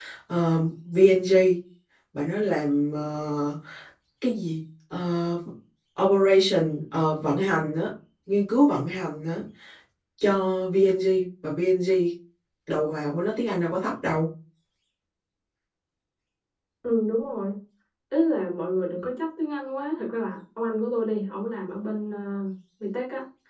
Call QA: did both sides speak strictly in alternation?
Yes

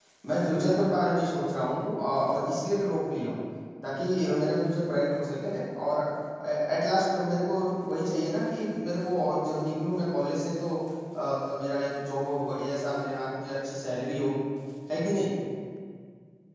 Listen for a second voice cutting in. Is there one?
No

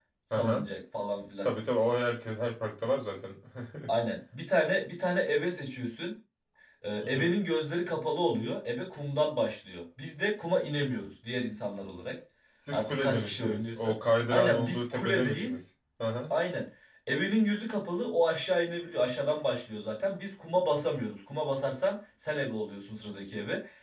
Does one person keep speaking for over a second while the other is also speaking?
Yes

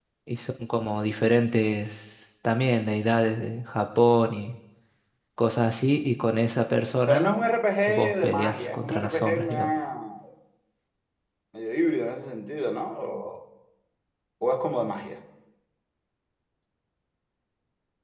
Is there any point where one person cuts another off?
Yes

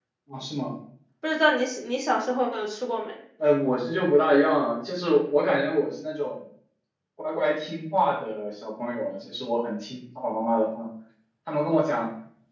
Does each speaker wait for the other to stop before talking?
Yes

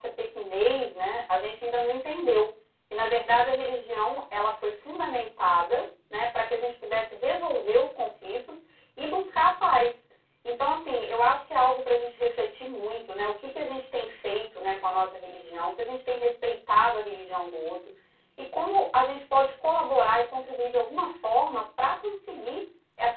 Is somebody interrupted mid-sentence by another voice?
No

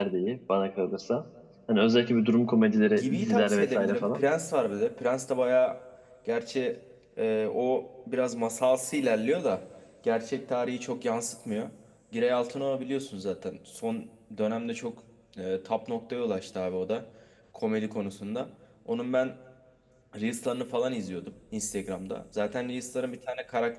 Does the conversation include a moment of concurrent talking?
Yes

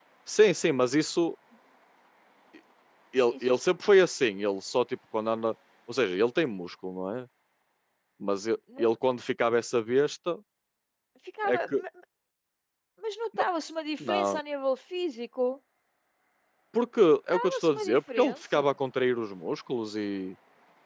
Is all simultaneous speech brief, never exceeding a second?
No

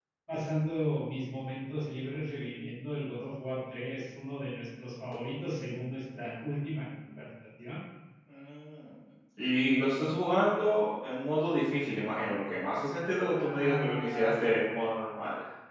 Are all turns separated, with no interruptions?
No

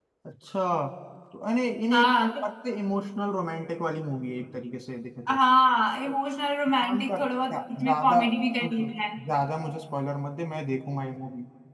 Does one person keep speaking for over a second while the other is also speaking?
Yes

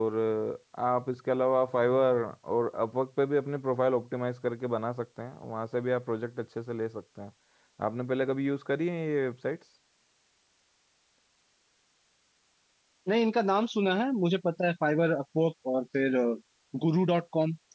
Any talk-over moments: No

